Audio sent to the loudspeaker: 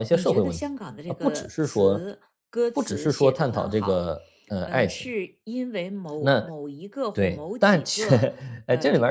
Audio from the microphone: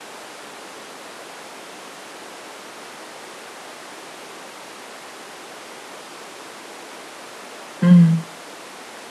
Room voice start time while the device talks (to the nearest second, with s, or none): 8 s